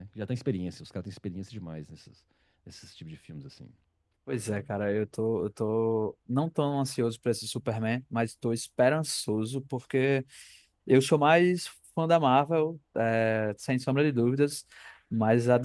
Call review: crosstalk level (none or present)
none